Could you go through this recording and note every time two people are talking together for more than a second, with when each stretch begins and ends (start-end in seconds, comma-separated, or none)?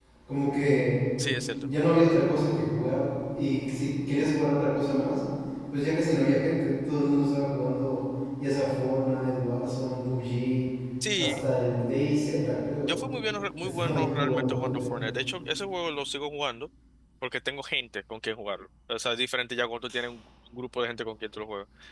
13.6-14.9